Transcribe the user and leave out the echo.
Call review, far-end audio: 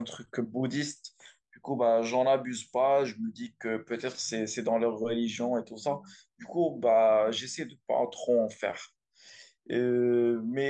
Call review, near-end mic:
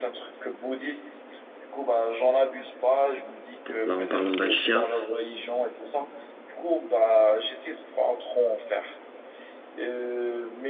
pour- Là, en parlant d'un chien,

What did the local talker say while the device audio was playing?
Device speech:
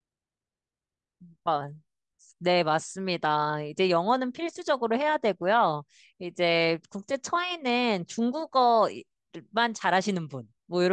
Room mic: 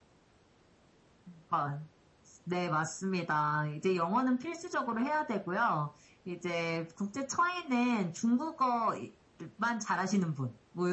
none

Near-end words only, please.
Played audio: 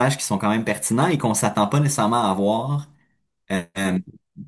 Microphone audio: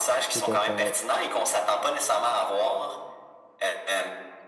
Tout à fait, ouais.

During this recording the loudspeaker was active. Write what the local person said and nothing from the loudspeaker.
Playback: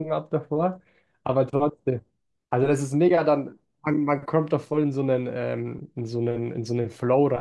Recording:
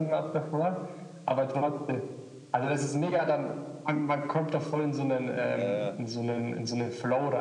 Ja, ja,

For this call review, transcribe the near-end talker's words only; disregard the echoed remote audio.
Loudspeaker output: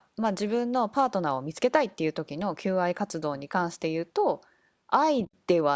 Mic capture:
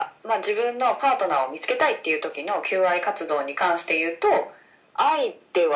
none

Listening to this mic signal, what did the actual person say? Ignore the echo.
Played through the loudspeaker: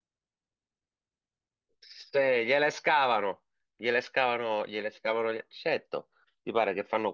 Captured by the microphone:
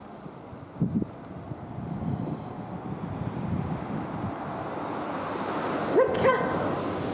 Perché?

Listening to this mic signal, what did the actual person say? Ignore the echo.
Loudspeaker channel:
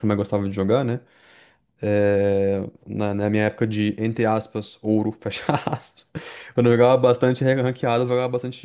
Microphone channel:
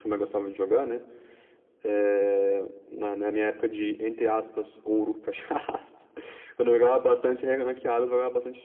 none

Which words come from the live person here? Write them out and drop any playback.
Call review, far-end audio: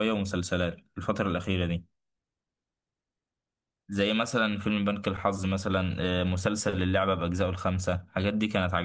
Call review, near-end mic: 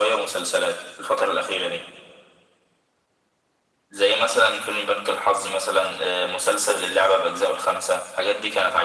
none

